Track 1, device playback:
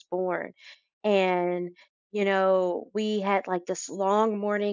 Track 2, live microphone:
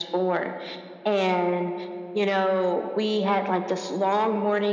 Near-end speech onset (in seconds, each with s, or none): none